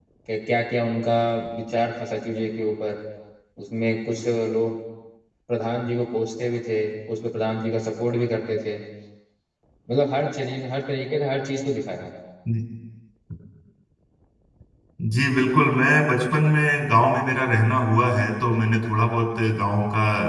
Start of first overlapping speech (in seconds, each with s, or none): none